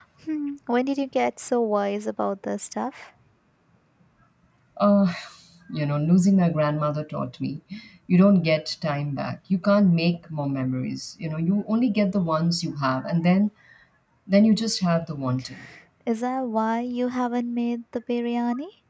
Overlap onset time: none

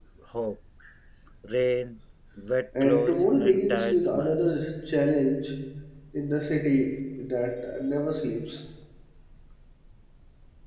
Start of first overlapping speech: 2.7 s

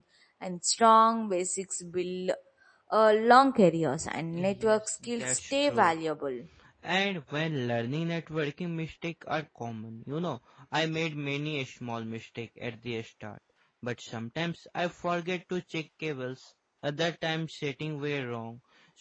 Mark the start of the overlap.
4.3 s

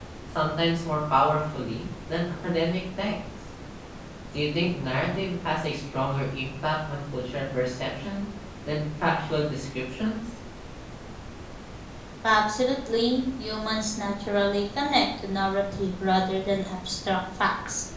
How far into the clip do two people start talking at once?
none

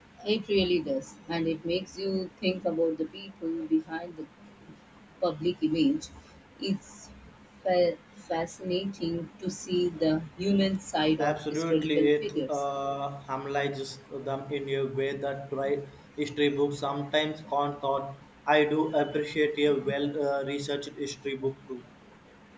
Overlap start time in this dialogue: 11.2 s

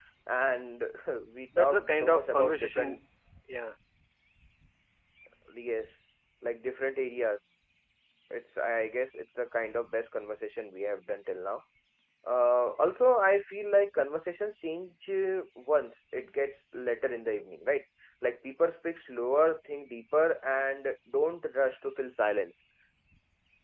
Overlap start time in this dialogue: 1.6 s

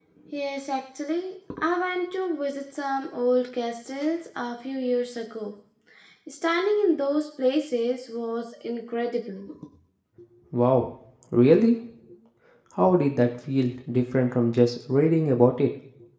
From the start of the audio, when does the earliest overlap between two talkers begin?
none

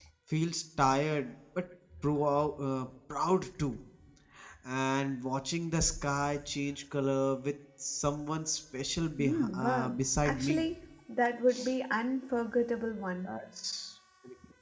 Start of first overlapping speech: 9.2 s

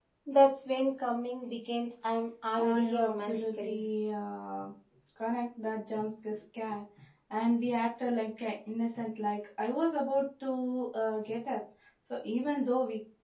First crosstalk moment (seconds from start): 2.6 s

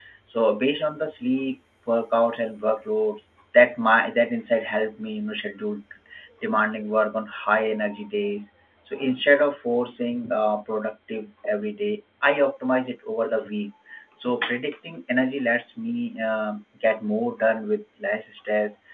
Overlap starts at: none

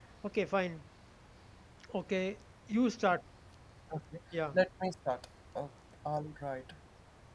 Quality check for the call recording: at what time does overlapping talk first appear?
none

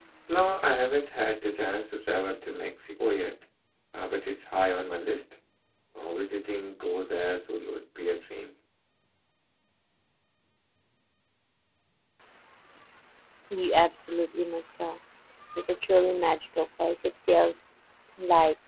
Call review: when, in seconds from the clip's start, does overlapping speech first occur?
none

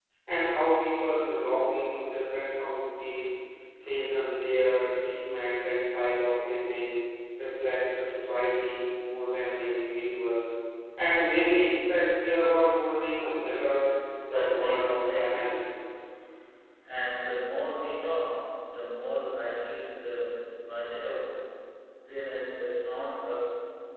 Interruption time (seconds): 14.2 s

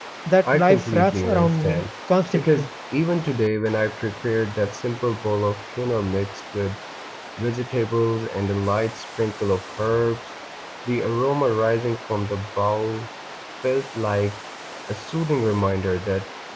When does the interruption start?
0.5 s

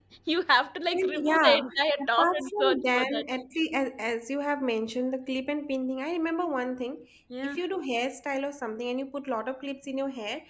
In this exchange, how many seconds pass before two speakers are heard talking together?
0.9 s

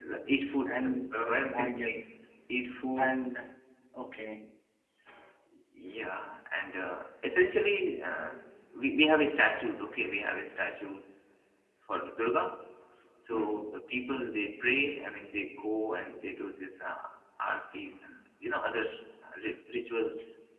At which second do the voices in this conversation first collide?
0.8 s

